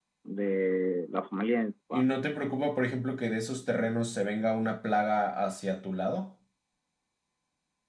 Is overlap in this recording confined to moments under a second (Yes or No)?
Yes